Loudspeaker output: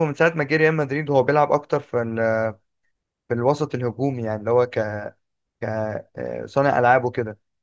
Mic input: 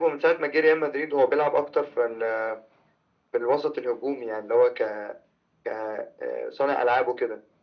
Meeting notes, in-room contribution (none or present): none